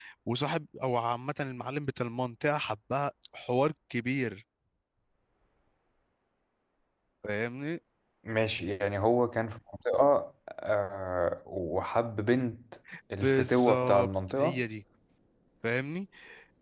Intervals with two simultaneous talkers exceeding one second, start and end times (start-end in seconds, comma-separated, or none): 13.2-14.6